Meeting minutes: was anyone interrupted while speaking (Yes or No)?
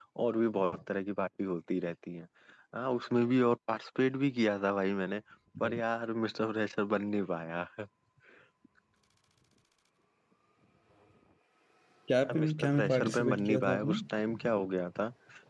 Yes